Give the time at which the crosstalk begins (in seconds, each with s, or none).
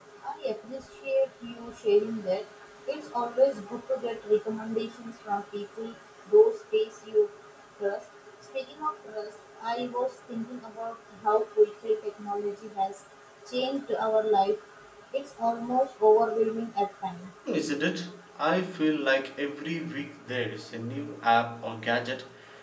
none